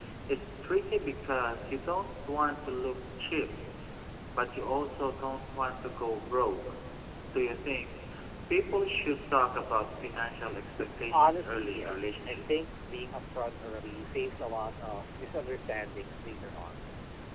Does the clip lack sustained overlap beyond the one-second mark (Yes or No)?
No